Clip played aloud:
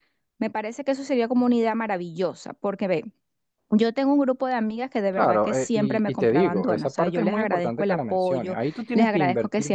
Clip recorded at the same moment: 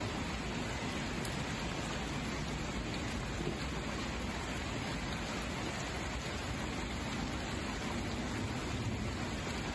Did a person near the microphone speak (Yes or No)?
No